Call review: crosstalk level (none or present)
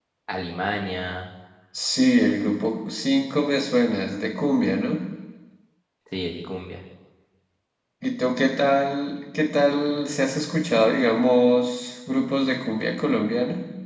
none